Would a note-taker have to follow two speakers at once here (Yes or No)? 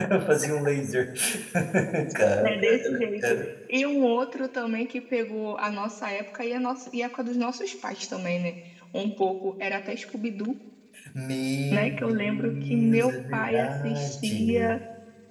Yes